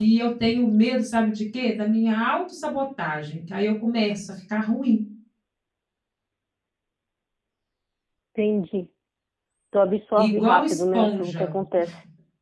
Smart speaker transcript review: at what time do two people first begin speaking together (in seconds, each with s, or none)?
10.2 s